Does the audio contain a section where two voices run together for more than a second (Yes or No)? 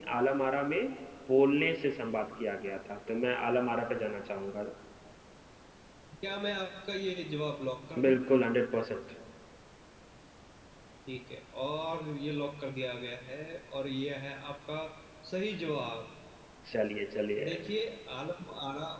No